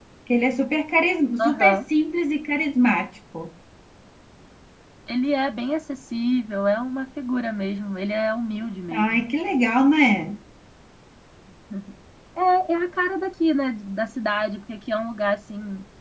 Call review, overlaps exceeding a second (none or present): none